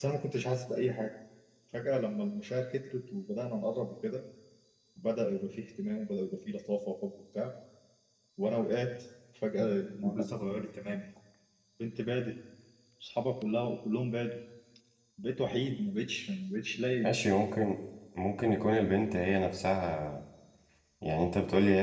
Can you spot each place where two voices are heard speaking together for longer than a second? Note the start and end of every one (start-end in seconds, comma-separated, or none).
none